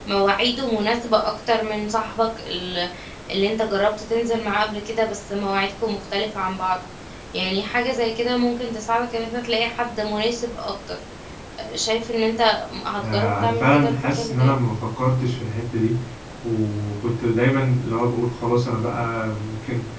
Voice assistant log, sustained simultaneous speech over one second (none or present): present